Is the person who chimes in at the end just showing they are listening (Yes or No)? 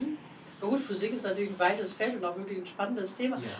Yes